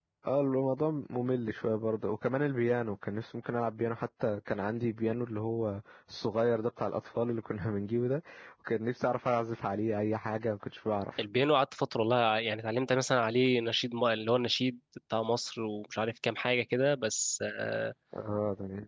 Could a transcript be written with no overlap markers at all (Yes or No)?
Yes